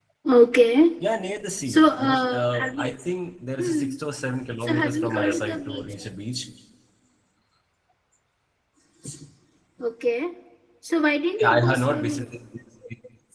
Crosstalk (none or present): present